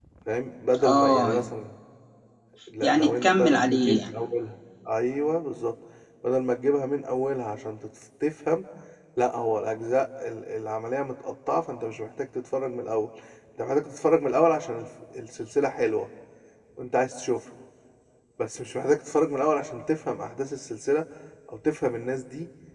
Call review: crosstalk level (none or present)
present